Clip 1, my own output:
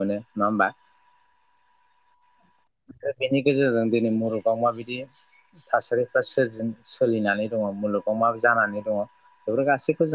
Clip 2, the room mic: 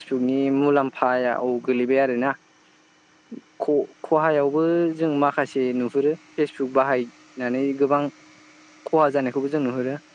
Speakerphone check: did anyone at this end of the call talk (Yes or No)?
Yes